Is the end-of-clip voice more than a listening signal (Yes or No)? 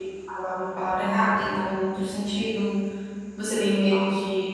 No